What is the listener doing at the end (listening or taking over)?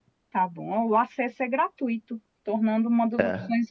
listening